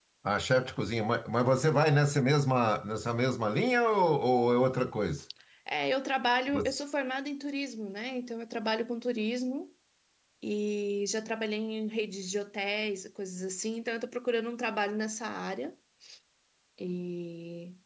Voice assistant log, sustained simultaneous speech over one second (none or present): none